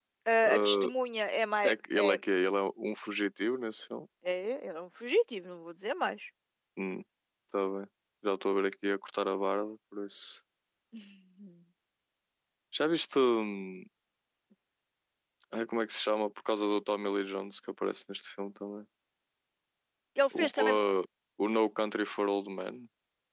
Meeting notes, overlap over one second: none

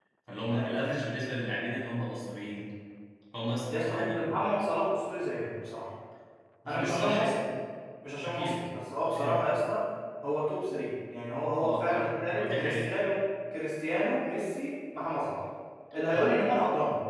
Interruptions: present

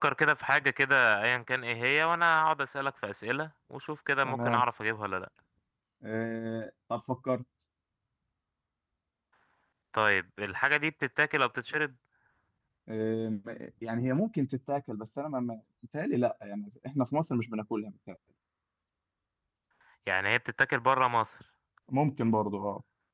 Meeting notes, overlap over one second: none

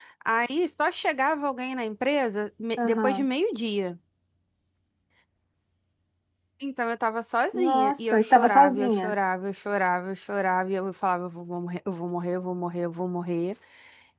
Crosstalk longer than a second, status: present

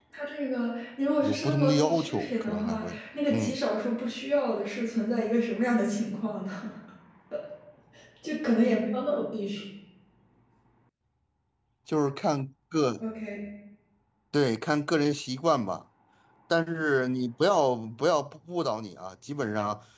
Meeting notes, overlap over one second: present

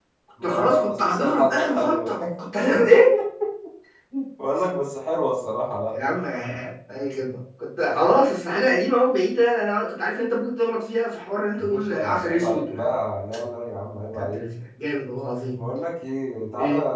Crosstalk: present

